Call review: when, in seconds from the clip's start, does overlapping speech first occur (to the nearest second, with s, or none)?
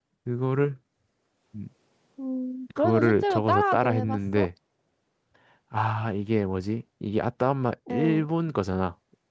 3 s